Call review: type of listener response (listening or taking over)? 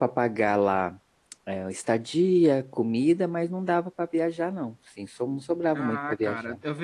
taking over